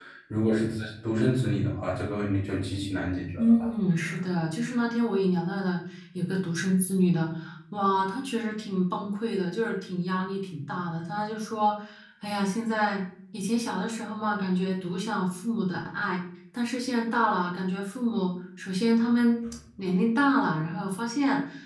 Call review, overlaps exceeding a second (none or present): none